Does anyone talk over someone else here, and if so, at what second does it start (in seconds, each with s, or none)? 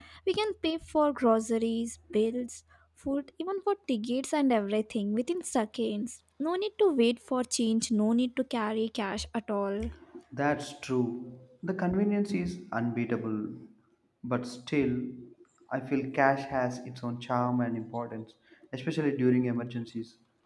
none